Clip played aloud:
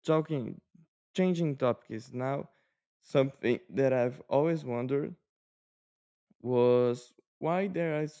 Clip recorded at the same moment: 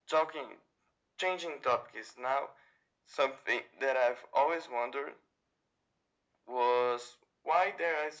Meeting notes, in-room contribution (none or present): none